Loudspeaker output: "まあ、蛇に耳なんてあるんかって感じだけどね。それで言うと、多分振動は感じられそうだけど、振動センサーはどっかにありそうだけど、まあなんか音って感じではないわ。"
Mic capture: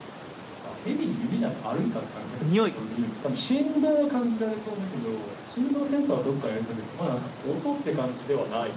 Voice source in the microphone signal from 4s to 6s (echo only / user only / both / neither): echo only